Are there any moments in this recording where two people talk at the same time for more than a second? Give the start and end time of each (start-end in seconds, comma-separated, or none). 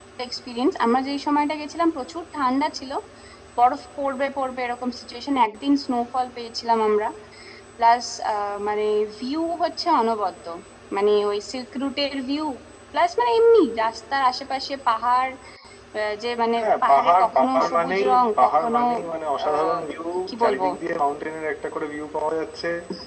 16.6-18.8